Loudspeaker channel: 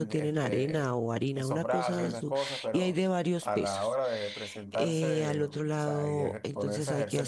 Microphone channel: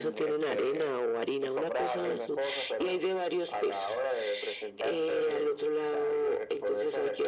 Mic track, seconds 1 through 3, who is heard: echo only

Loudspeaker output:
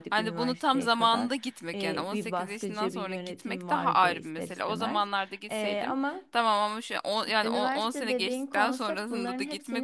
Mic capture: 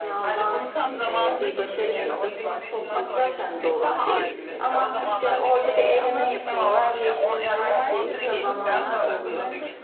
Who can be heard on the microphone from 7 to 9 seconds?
both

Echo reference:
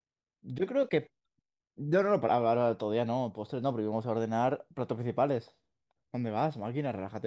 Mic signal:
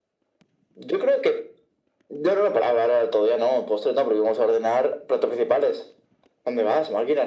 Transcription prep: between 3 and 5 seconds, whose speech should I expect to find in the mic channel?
echo only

